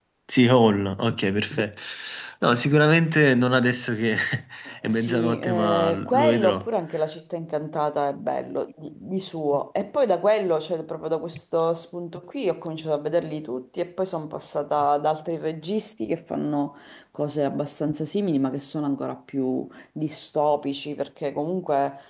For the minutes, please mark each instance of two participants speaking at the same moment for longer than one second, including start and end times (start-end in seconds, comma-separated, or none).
4.9-6.7